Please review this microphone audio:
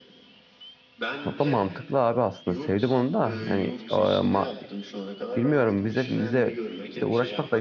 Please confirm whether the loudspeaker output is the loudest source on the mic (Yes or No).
No